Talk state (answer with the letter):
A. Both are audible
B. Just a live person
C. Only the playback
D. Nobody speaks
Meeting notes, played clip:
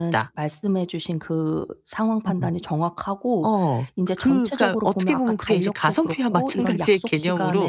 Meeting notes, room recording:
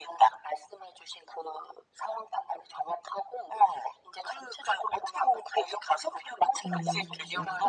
A